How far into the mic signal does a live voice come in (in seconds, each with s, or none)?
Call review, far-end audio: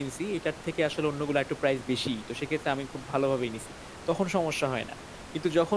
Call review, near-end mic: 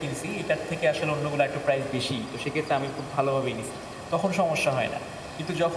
none